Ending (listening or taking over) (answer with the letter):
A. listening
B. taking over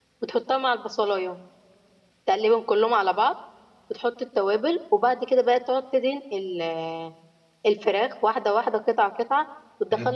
B